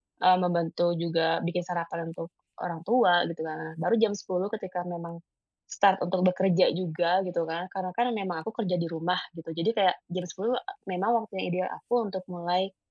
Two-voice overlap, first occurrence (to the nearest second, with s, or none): none